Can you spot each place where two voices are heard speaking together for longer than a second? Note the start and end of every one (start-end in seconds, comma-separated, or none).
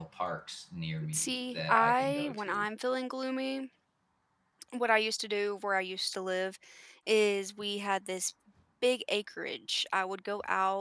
1.1-2.7